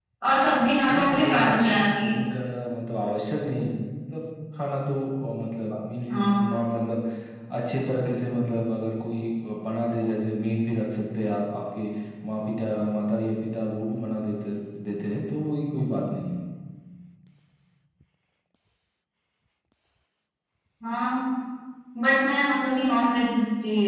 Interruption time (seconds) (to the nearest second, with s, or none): 1 s